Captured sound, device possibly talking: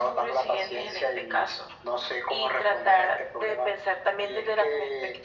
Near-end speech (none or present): none